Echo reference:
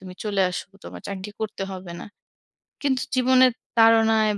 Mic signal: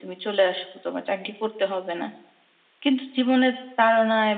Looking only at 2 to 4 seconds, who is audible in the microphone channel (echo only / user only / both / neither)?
echo only